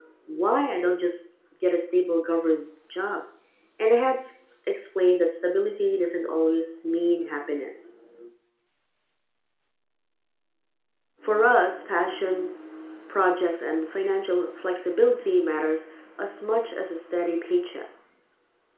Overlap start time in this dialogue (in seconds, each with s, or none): none